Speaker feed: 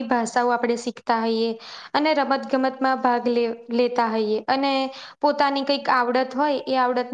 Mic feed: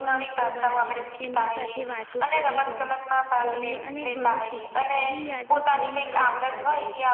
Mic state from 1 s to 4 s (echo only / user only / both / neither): both